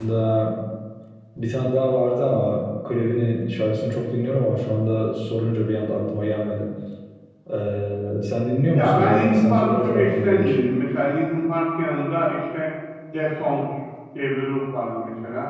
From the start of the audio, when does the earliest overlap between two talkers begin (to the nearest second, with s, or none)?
9 s